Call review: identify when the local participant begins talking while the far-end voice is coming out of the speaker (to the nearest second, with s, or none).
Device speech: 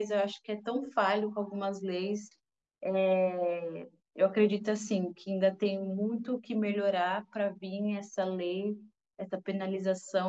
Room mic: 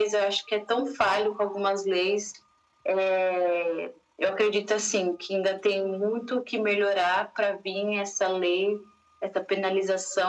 none